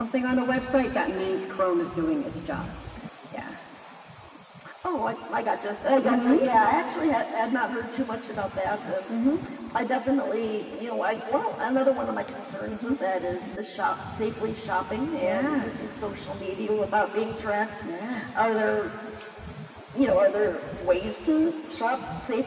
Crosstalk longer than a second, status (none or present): none